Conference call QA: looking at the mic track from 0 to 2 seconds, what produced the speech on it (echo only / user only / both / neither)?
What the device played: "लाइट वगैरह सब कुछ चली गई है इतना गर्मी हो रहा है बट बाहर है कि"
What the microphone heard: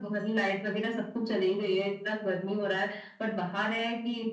echo only